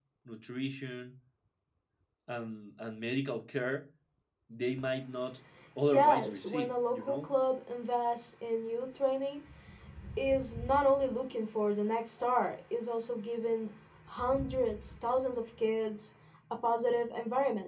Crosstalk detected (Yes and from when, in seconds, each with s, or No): Yes, from 5.9 s